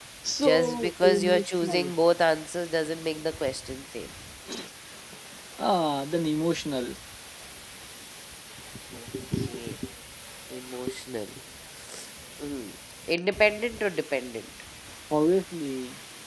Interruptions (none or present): present